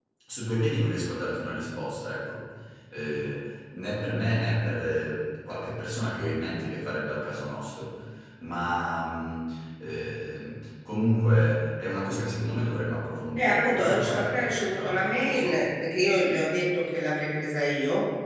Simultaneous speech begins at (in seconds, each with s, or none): 13.4 s